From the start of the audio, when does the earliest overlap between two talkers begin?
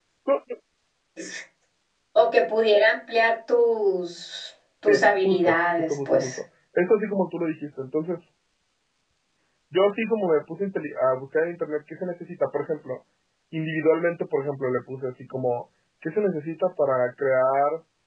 4.9 s

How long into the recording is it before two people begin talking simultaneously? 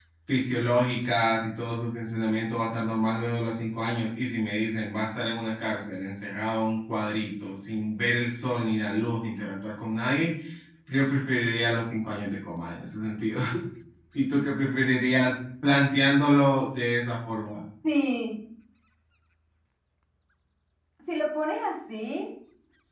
none

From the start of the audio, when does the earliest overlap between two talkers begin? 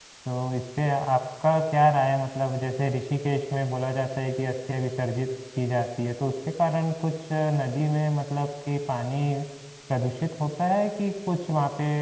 none

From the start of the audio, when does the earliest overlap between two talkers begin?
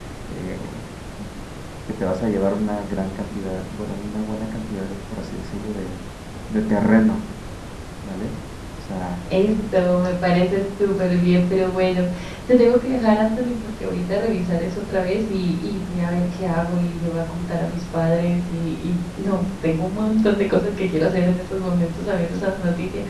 none

